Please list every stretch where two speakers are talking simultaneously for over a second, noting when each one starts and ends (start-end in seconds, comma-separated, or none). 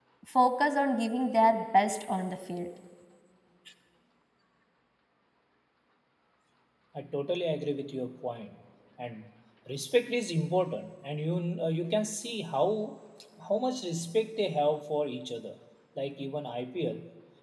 none